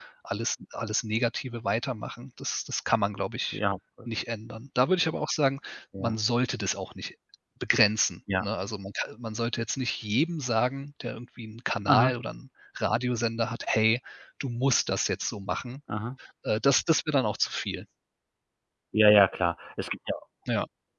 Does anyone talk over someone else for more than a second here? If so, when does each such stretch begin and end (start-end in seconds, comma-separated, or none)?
none